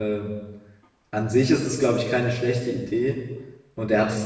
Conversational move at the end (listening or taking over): listening